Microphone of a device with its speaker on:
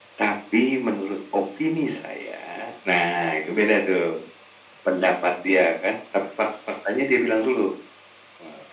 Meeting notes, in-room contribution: none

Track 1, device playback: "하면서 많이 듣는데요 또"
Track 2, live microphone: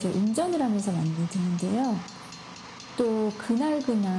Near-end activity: none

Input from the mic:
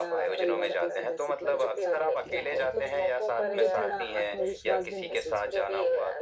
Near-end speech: present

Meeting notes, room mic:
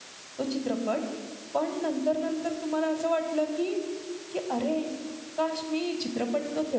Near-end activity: present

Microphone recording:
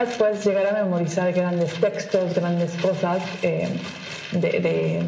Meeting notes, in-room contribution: none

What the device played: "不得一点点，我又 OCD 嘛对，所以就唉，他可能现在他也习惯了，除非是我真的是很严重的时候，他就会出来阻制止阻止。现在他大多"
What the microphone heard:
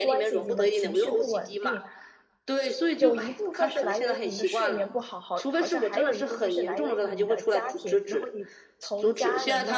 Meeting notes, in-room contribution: present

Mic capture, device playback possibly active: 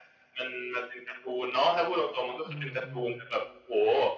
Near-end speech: present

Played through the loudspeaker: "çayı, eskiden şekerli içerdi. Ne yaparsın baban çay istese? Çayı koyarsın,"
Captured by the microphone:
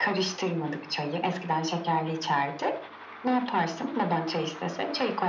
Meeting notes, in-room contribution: none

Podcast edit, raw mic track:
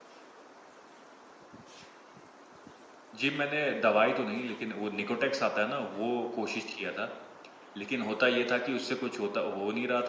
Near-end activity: present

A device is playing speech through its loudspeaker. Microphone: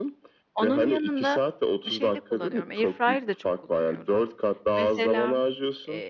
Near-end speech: present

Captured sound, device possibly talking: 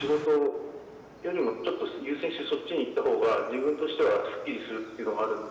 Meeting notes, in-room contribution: none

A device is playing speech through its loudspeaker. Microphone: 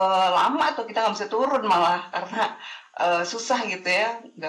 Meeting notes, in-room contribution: none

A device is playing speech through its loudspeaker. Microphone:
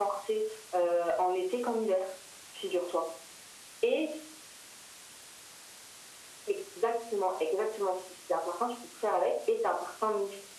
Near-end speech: none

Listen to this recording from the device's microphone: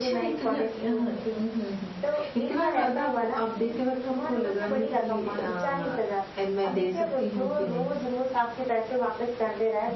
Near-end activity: none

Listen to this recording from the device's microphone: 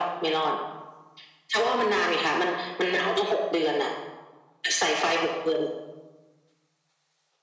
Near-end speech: none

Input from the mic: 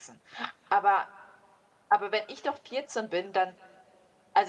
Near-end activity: present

